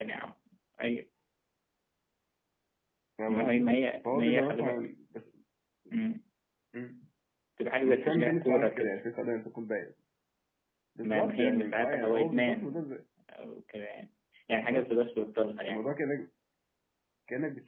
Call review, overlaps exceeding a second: present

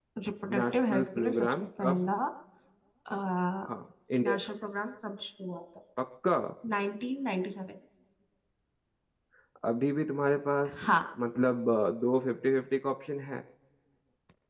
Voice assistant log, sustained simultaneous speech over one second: present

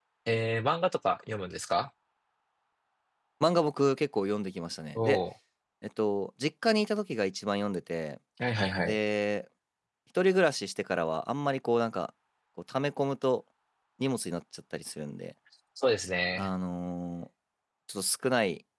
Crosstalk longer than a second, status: none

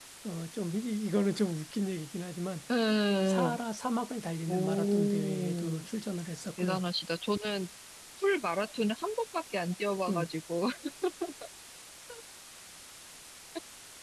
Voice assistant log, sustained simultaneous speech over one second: present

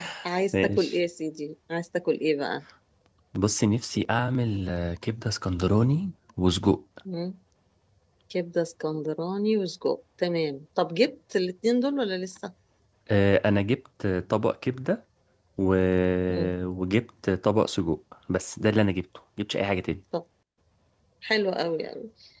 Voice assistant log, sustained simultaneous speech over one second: none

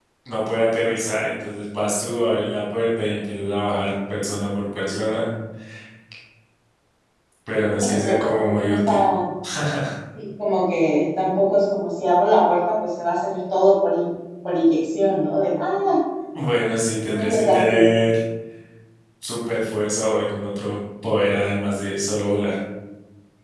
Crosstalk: present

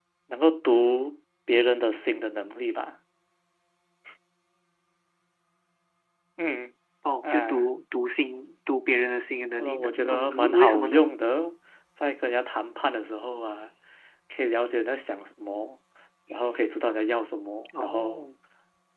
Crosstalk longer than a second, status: present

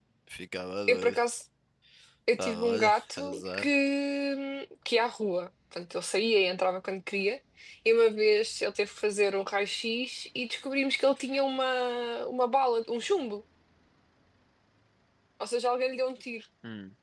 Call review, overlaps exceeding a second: present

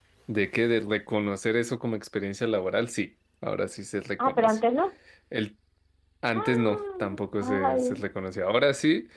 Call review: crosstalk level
present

